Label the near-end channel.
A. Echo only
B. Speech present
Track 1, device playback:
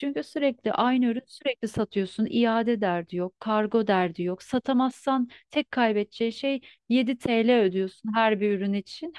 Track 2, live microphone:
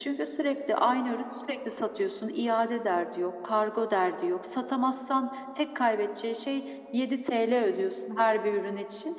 A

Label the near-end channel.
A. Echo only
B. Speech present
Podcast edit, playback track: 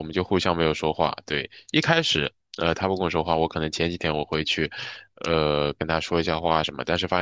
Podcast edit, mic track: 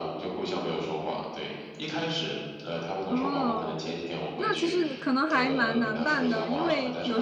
B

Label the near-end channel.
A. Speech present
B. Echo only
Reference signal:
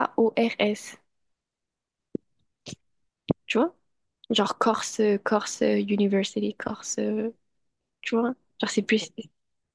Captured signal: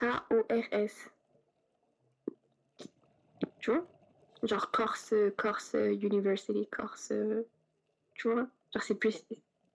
B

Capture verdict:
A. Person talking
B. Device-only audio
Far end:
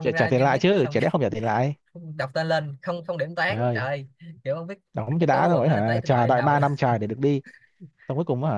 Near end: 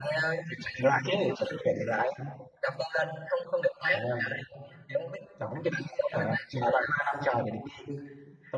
B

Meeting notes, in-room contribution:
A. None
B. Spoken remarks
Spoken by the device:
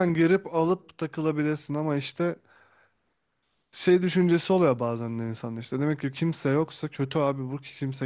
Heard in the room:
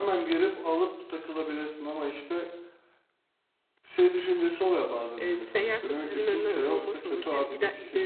B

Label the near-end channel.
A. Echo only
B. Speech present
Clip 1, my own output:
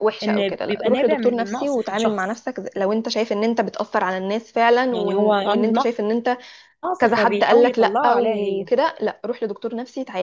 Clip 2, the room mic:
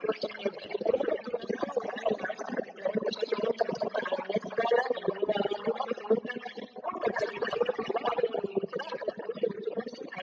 A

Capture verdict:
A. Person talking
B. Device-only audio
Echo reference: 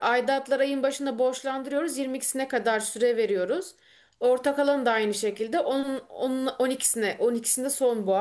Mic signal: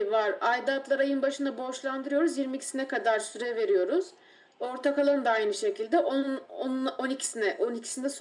B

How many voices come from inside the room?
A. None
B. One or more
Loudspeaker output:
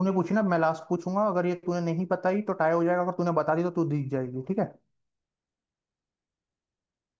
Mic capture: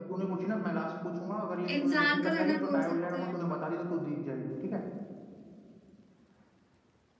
B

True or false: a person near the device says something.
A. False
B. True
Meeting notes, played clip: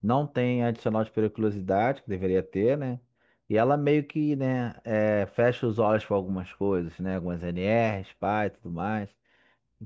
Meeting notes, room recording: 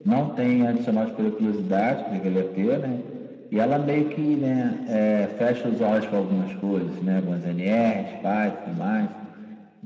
A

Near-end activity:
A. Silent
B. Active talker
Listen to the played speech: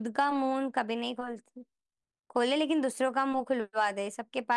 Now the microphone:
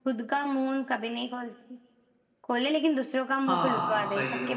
B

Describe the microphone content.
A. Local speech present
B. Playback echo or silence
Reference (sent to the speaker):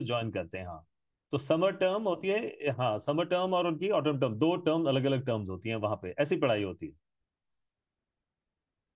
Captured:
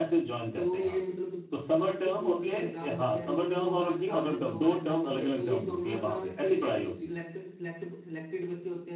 A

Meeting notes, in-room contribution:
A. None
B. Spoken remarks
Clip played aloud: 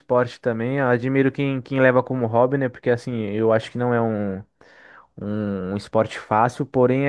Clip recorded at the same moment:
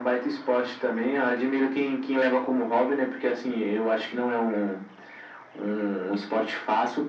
A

